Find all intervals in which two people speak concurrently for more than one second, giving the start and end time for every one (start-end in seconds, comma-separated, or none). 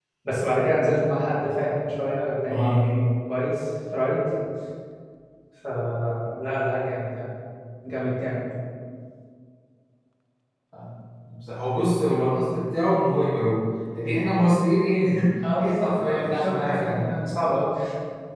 15.6-17.1